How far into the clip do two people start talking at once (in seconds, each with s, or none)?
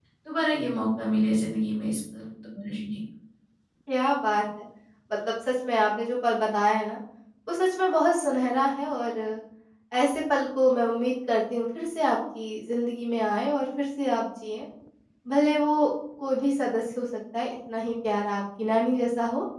none